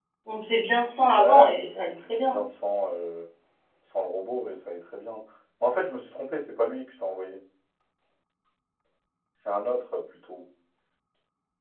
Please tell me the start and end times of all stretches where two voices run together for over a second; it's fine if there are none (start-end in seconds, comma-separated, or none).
1.0-2.4